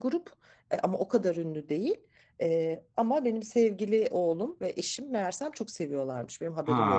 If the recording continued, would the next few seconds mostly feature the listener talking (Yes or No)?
No